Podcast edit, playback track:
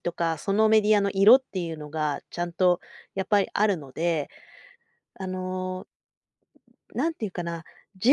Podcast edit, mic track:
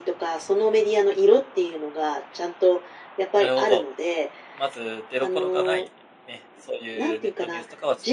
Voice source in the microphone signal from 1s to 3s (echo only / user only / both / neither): echo only